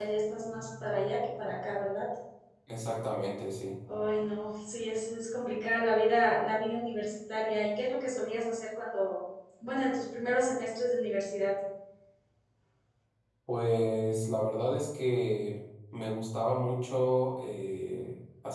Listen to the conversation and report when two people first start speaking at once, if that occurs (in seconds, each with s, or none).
none